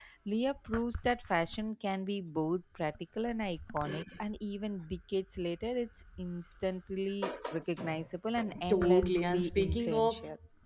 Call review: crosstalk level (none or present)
present